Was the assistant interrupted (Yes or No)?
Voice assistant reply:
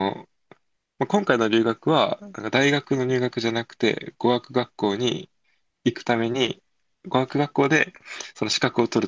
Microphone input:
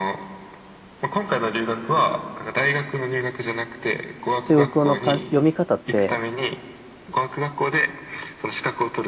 Yes